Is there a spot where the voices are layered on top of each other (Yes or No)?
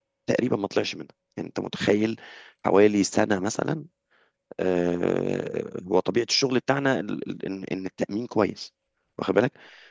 No